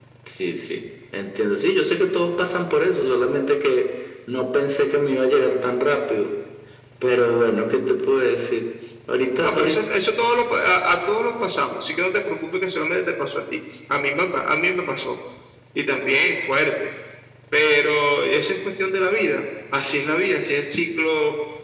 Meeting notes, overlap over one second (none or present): none